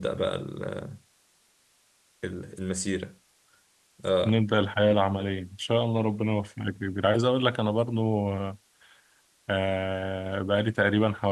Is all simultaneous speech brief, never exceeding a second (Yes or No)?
Yes